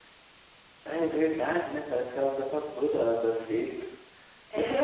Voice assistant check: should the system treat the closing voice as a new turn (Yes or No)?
Yes